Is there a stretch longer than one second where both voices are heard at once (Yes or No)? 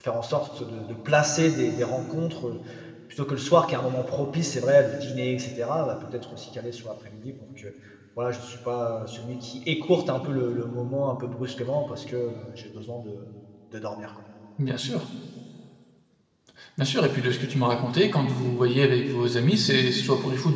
No